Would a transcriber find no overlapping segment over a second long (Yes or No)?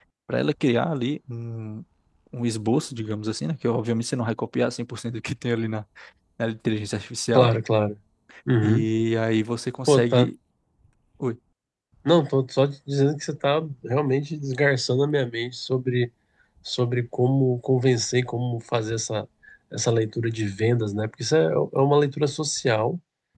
Yes